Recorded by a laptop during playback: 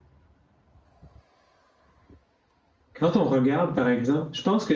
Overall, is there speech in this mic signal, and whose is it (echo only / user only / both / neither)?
user only